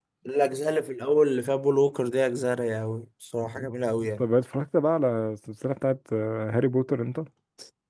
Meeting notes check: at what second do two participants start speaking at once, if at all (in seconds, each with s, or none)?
none